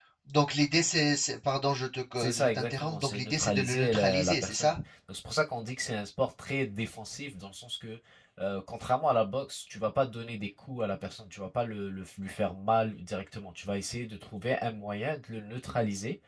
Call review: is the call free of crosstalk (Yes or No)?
No